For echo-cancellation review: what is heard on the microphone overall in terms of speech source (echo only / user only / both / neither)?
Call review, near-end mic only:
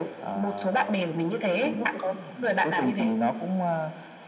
echo only